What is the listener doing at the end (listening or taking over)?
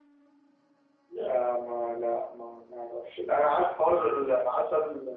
listening